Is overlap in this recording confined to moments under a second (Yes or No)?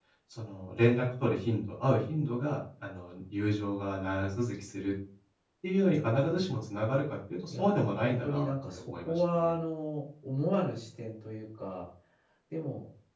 No